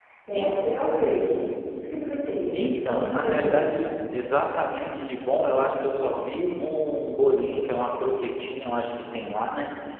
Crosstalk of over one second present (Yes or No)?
Yes